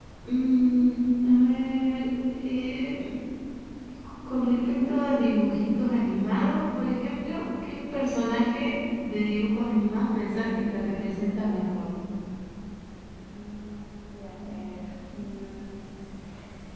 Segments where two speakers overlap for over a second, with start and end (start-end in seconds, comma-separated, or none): 9.6-11.8